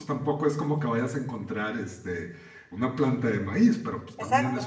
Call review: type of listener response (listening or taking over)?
listening